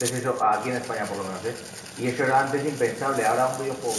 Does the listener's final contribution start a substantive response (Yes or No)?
No